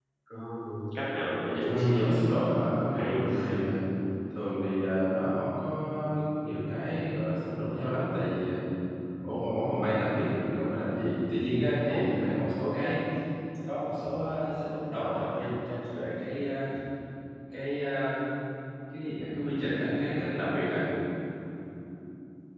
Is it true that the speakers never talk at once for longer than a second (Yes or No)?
No